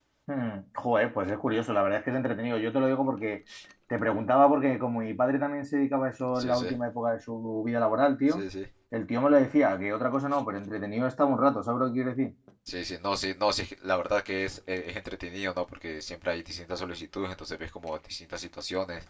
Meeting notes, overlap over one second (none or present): none